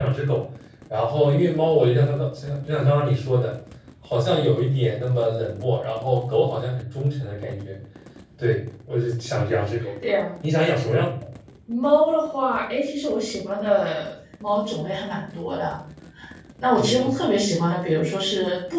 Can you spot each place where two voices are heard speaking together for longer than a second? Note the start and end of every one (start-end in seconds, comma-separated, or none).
none